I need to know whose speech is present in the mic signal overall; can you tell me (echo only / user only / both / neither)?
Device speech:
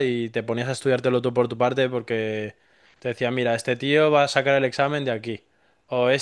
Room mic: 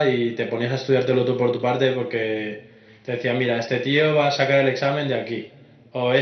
echo only